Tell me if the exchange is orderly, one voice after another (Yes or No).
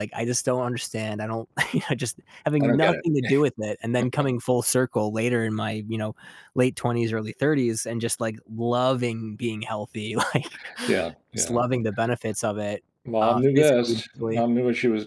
No